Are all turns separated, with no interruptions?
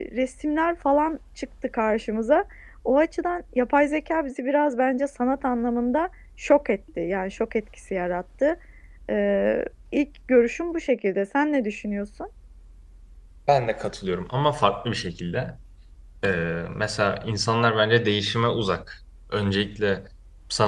Yes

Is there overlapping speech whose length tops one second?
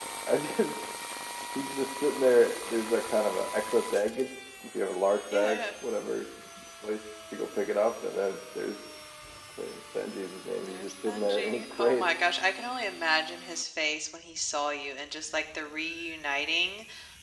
Yes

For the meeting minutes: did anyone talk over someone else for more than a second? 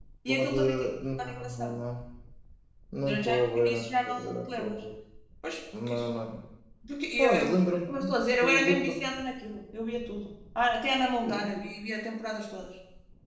Yes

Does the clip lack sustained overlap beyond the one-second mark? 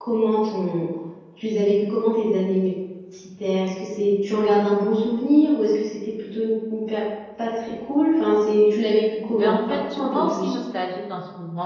No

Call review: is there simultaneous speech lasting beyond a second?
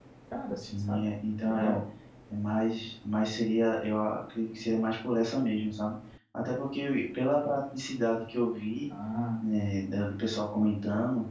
No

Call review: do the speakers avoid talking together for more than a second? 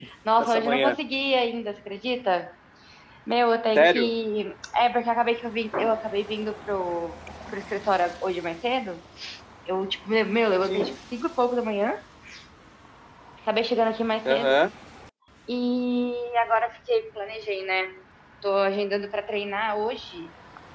Yes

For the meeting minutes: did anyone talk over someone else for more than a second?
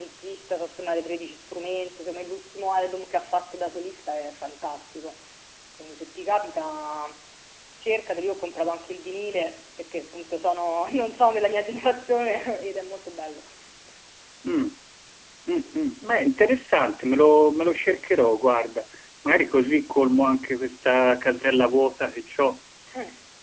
No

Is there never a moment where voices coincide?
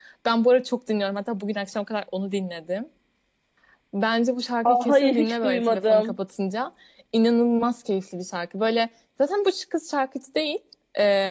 No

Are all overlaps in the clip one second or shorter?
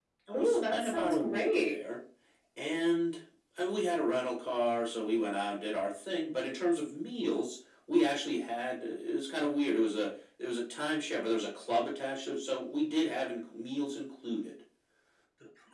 No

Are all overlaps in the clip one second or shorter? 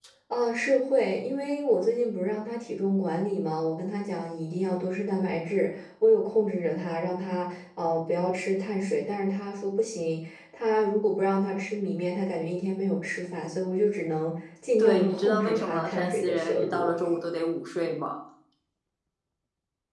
No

